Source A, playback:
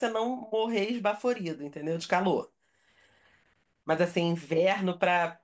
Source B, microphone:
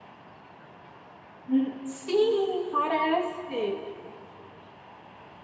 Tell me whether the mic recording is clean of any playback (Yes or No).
Yes